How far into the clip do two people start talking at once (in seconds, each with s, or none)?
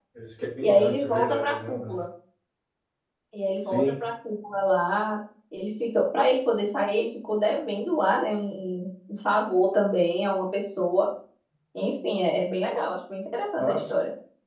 0.6 s